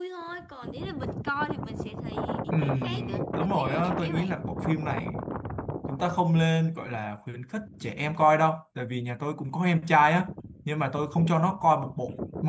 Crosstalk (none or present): present